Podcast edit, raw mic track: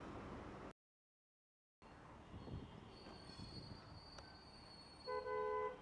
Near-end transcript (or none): none